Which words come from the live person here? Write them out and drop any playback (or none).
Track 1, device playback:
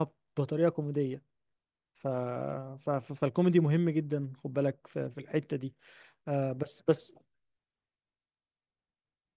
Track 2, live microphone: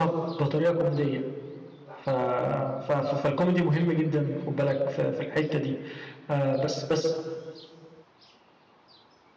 none